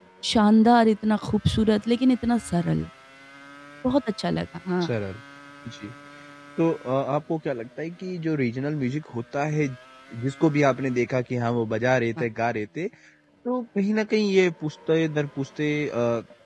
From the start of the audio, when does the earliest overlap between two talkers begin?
none

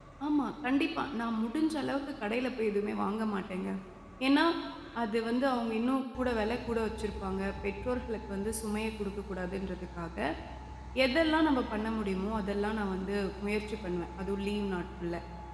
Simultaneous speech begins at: none

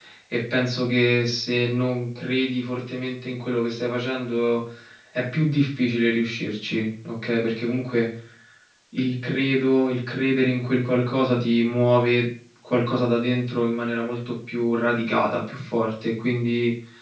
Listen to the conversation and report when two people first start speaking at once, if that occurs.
none

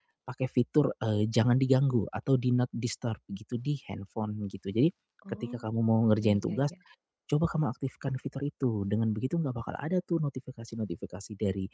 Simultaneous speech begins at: 5.4 s

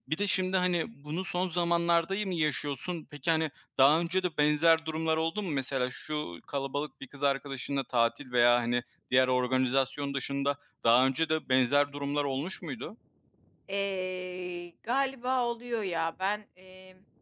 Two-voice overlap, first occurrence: none

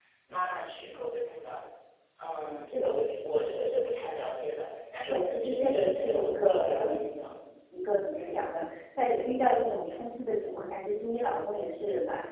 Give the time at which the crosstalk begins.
5.1 s

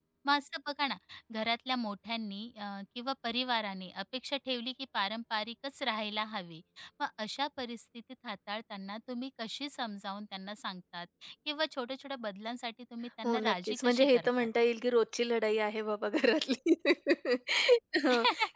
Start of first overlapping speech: 13.2 s

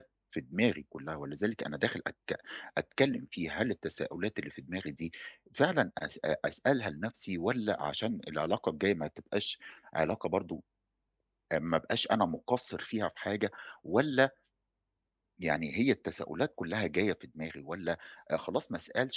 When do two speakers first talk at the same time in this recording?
none

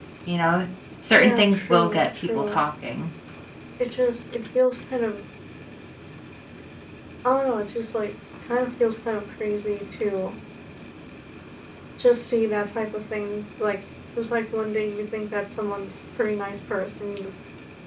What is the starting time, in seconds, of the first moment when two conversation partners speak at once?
1.1 s

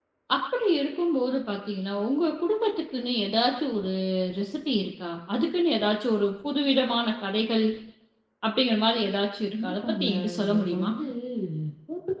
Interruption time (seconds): 9.5 s

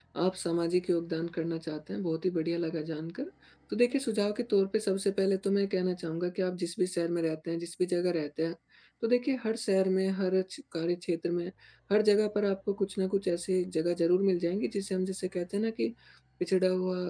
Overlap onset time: none

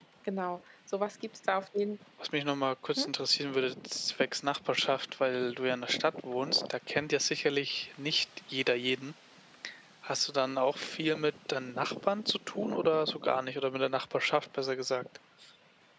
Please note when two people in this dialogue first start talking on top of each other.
none

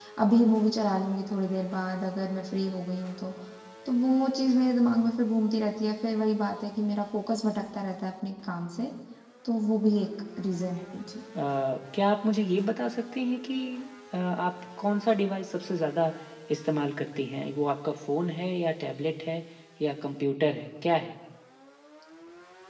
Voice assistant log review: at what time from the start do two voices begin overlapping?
none

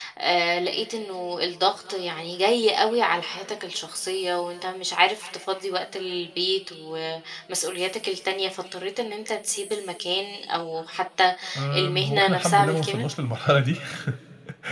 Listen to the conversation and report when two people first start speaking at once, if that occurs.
11.7 s

